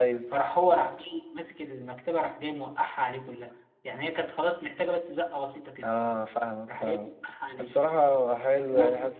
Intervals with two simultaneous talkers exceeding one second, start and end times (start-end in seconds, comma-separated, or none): none